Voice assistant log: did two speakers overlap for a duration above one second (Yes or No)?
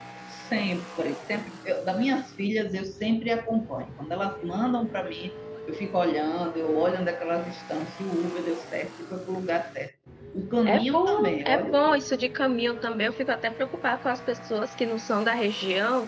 Yes